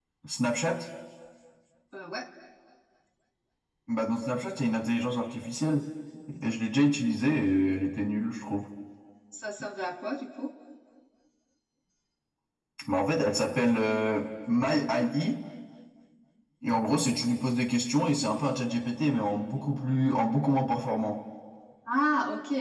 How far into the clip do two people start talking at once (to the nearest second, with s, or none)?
none